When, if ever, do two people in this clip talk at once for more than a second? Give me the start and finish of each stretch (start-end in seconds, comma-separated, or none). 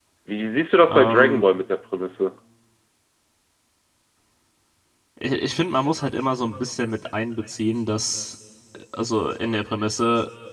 none